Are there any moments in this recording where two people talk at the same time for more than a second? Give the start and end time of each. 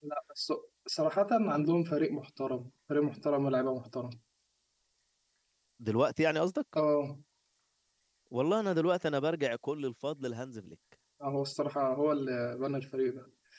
none

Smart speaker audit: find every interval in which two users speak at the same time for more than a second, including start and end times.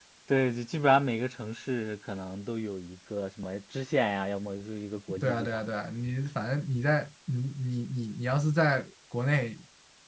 none

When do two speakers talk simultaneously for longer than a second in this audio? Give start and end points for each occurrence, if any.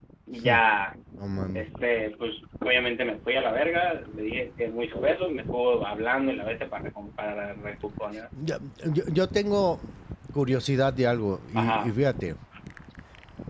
none

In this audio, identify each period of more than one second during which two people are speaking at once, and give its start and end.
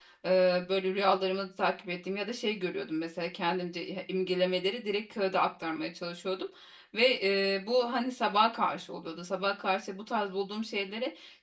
none

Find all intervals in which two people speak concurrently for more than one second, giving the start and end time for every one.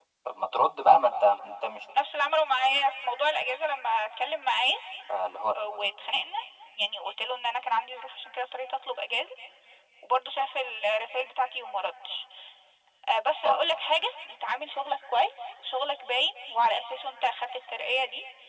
none

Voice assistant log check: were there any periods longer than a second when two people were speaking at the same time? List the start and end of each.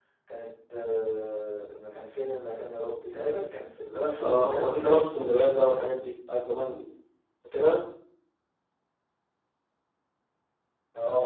4.2-6.0

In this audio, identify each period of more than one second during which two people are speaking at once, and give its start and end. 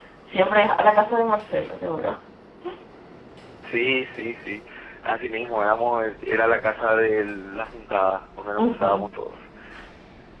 none

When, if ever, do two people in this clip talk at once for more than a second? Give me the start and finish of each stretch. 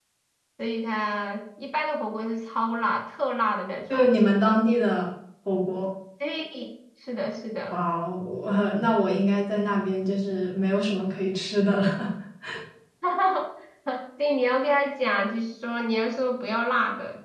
none

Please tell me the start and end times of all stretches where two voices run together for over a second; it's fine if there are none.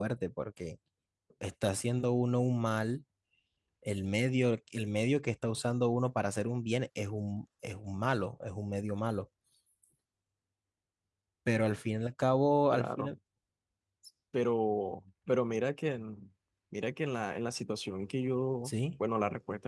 none

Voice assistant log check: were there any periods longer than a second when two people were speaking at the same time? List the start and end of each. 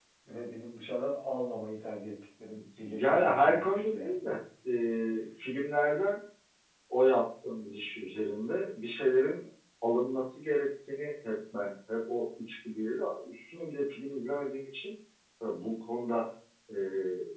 2.8-4.2

